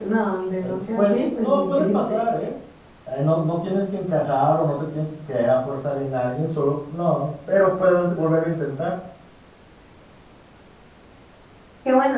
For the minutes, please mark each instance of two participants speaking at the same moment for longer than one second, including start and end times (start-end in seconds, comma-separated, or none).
0.6-2.3